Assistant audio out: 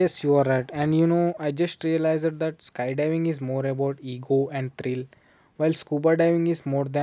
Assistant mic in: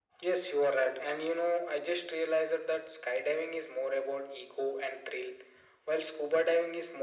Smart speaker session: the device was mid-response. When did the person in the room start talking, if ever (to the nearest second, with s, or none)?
none